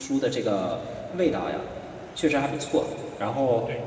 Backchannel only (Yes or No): No